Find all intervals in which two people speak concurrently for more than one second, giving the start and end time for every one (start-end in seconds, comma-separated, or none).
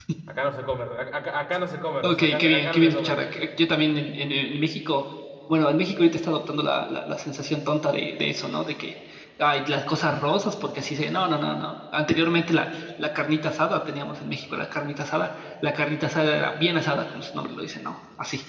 2.0-3.2